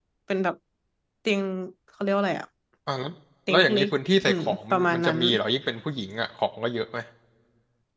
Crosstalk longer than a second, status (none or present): present